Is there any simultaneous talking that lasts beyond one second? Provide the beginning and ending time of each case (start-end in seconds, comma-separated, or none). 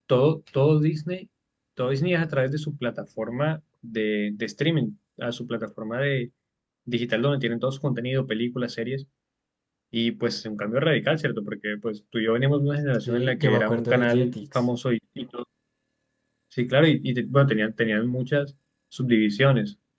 13.0-14.6